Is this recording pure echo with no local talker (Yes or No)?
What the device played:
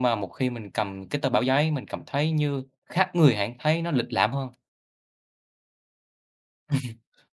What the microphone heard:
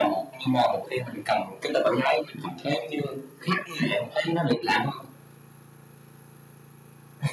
Yes